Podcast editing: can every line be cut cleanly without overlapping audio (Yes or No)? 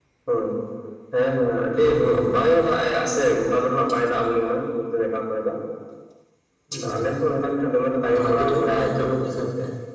No